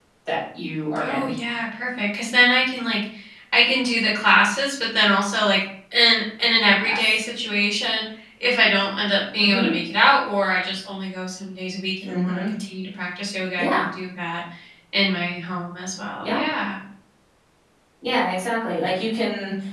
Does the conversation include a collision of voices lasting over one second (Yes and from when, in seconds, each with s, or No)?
No